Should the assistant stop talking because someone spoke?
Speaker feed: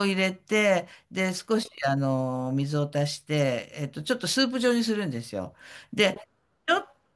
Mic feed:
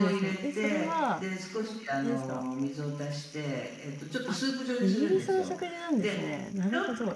Yes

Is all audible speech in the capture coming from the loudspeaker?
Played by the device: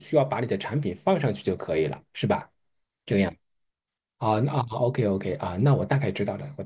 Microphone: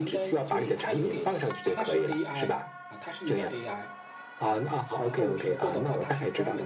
No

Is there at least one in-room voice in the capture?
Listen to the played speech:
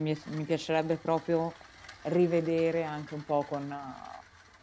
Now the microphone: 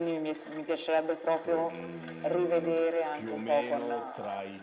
Yes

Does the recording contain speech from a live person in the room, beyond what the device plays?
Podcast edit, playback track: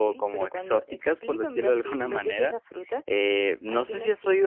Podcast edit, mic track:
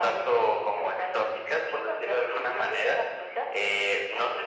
No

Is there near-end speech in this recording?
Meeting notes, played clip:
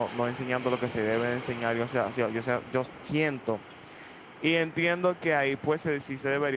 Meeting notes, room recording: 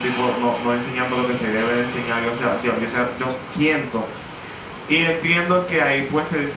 No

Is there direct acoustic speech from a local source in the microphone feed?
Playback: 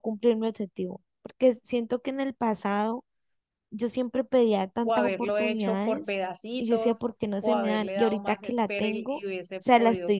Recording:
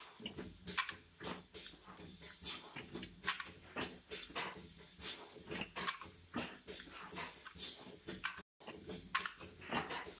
No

